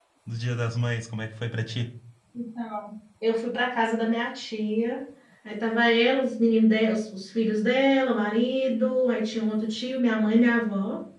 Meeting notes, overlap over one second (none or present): none